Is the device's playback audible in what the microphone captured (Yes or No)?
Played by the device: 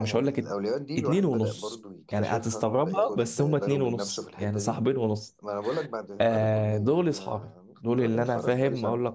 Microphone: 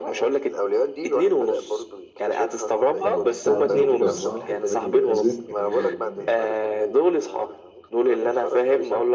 Yes